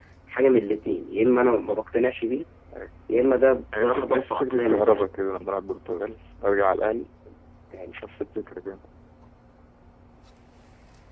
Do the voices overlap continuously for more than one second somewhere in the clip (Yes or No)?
Yes